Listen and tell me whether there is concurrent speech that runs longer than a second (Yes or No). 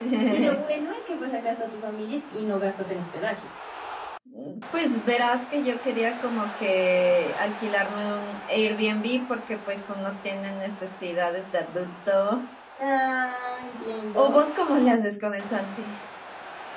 No